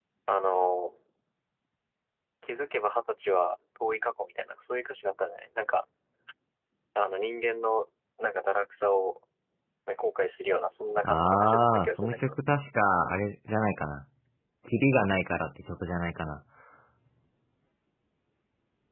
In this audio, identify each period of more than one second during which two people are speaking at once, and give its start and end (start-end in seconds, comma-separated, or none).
11.0-12.3